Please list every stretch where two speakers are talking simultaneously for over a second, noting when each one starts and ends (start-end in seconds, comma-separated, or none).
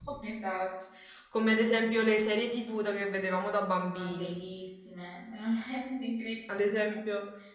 none